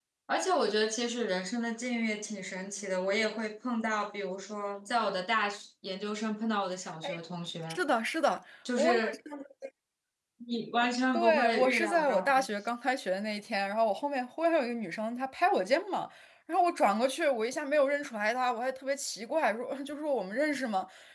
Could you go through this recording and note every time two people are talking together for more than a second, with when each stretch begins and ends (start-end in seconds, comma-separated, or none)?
11.1-12.5